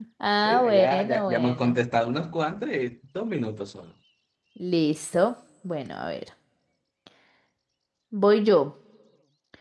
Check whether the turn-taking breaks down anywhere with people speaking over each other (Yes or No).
Yes